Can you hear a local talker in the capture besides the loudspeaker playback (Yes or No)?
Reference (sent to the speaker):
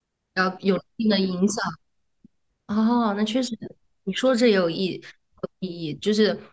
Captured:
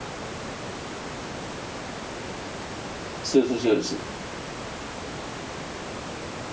Yes